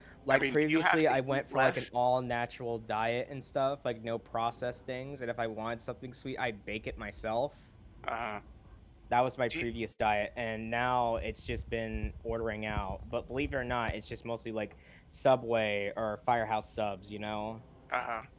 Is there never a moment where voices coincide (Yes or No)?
No